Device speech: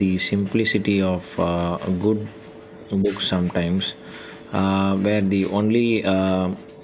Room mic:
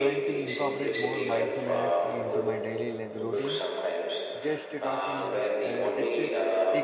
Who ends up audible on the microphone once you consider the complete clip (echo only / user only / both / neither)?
both